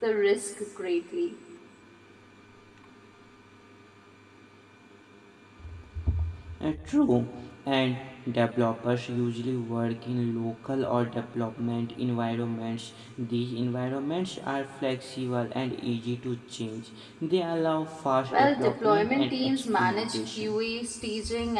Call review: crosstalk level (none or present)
present